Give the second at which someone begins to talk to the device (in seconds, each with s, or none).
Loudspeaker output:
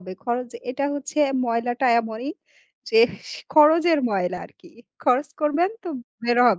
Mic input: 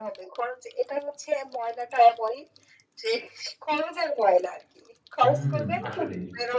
5.2 s